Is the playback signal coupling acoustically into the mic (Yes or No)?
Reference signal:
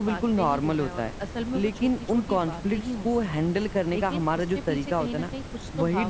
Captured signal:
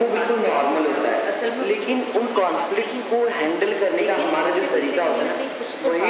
Yes